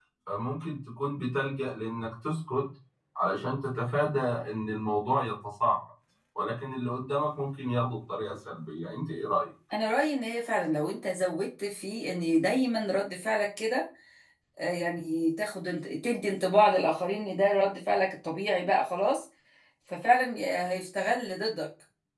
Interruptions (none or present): none